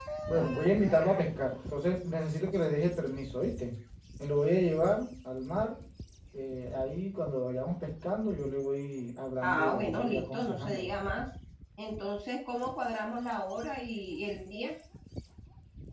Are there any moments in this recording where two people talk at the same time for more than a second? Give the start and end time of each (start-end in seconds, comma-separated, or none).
9.4-10.9